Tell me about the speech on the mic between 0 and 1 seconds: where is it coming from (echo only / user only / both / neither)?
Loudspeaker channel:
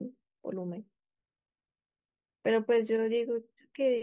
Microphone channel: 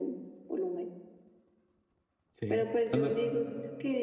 echo only